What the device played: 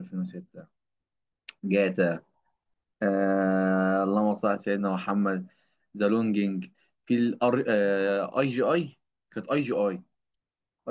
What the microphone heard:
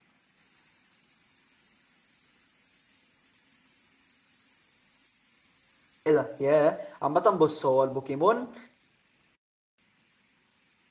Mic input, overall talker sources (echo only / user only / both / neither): user only